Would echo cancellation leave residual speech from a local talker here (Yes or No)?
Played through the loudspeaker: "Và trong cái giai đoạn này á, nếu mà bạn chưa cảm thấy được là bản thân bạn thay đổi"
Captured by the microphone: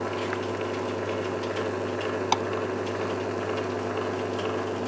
No